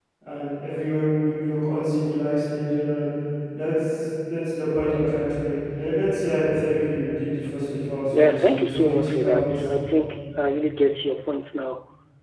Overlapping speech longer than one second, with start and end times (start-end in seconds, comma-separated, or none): 8.1-9.6